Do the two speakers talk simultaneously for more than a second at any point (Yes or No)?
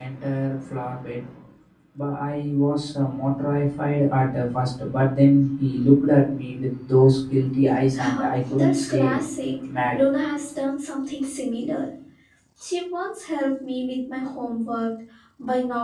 Yes